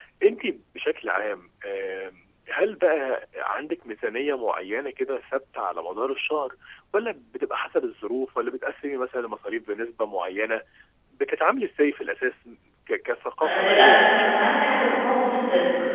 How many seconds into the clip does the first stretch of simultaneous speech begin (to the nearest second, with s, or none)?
13 s